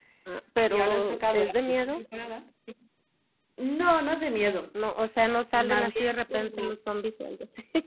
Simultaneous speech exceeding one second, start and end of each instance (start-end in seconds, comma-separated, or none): 0.7-2.0, 5.5-6.7